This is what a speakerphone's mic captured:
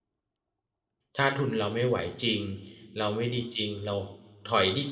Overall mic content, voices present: user only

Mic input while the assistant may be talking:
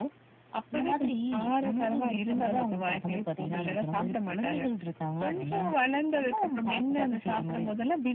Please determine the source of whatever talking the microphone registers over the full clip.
echo only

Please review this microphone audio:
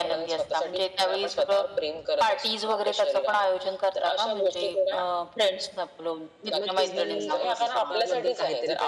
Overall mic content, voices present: both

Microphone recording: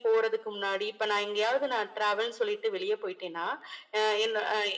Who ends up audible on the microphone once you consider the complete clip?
echo only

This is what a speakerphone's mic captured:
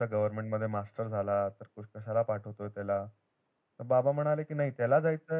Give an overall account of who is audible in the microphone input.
echo only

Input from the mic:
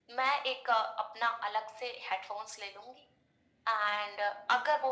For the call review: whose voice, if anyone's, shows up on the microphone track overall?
echo only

